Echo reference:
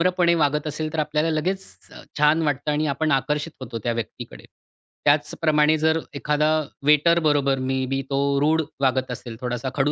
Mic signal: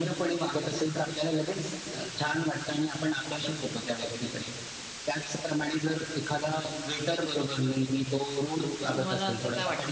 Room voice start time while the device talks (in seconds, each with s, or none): 8.8 s